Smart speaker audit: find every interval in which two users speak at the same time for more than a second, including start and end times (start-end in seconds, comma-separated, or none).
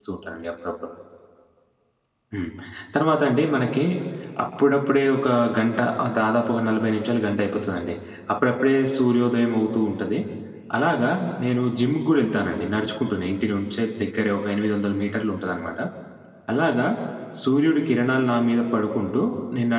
none